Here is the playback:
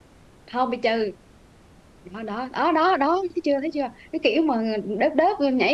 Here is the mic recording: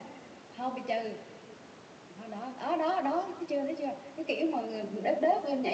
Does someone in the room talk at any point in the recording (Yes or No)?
No